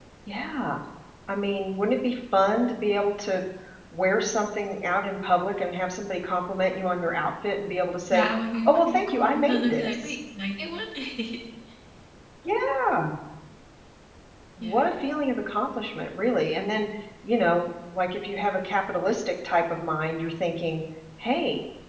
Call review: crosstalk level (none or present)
present